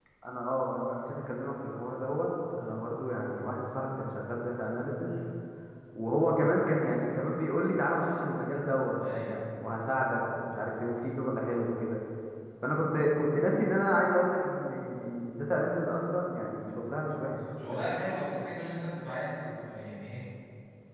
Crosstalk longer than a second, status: none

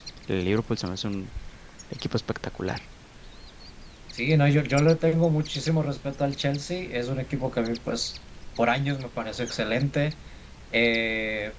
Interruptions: none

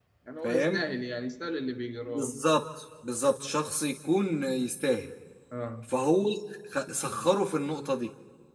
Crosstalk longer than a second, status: none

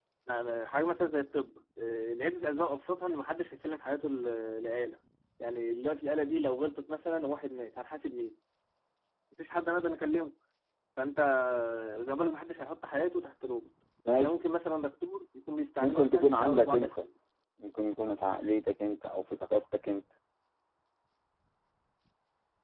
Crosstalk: present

